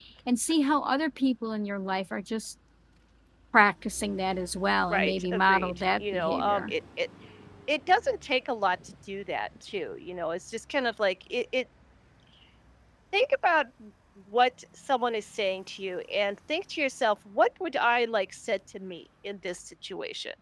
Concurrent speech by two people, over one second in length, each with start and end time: 4.9-6.7

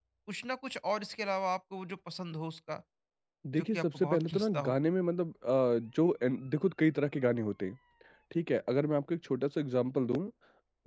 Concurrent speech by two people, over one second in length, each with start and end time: 3.5-4.7

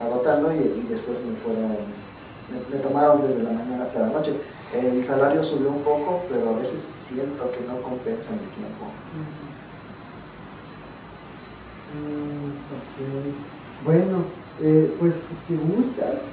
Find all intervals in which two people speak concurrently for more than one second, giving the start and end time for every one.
none

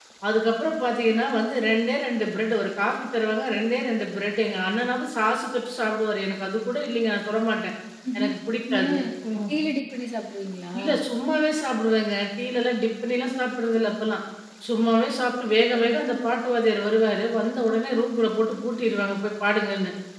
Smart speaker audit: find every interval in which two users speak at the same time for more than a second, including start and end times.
none

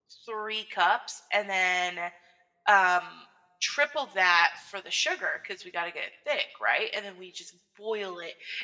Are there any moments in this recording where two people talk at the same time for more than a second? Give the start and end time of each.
none

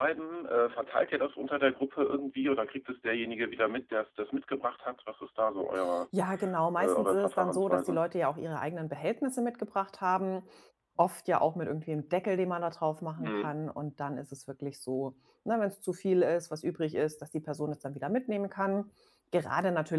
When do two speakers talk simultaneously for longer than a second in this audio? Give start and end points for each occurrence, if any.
6.8-8.0

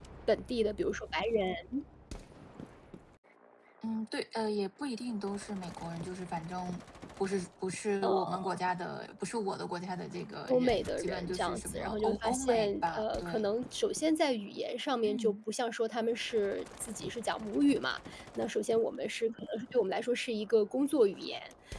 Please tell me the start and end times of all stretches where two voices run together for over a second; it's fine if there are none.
10.5-13.4

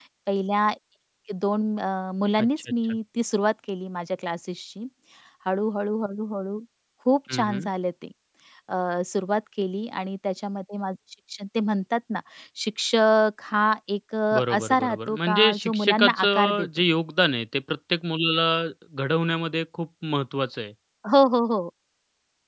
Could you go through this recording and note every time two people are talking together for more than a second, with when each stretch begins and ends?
14.3-16.7

